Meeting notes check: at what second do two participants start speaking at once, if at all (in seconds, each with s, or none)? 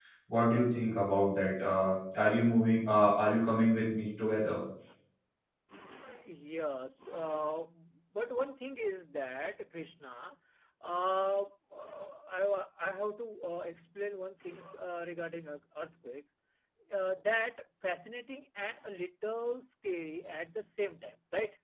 none